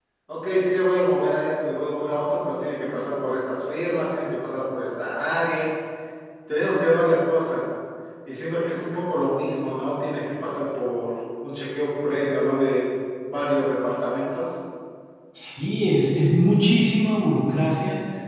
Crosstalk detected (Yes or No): No